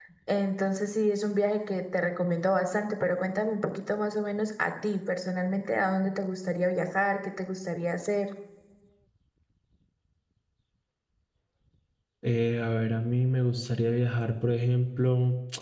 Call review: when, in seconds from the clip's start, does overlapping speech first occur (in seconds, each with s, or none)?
none